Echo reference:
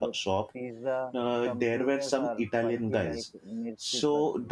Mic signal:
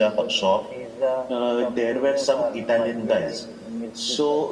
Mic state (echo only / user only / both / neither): echo only